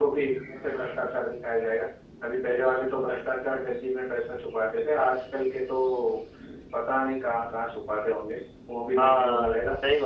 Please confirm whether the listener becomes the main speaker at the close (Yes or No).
Yes